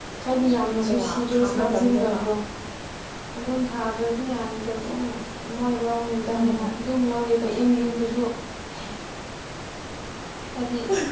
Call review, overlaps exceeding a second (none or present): present